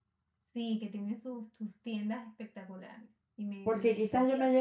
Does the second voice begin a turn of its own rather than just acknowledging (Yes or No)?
Yes